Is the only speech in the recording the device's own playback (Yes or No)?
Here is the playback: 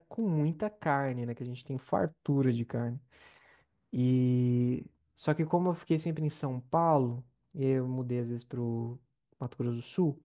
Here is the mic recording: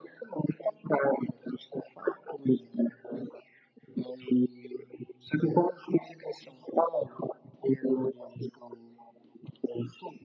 Yes